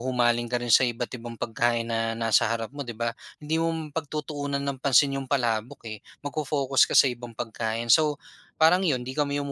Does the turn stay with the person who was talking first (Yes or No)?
Yes